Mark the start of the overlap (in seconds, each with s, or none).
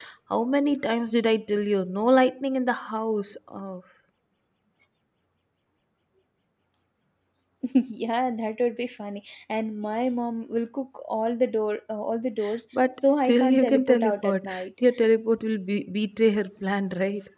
12.9 s